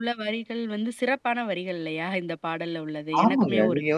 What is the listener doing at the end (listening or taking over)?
taking over